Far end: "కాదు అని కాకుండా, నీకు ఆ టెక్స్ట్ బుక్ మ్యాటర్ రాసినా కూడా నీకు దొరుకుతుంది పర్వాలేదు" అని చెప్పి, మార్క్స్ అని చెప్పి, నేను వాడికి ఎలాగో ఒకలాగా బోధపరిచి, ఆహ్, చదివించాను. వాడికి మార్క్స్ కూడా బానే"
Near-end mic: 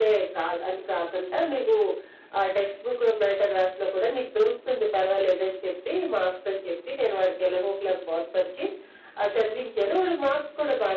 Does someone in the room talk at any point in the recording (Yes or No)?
No